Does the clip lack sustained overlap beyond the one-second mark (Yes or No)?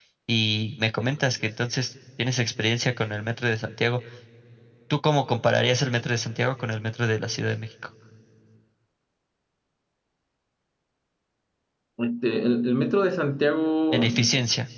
Yes